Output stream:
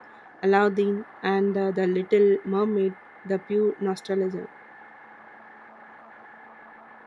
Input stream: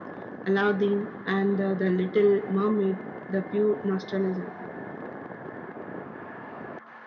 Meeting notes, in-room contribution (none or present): none